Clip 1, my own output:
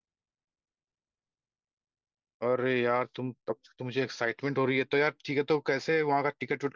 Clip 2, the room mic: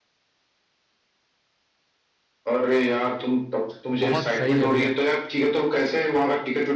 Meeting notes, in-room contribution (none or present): present